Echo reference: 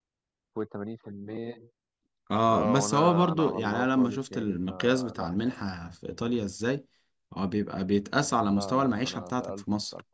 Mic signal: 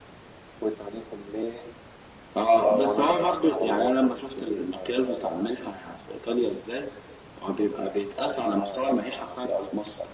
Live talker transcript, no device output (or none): none